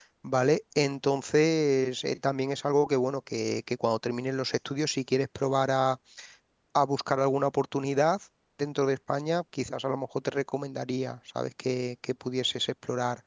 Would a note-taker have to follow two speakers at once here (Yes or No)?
No